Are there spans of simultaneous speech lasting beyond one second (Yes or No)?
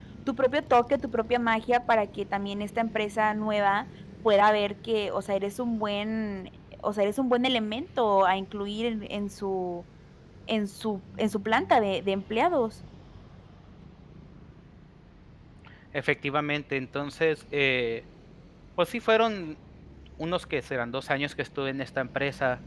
No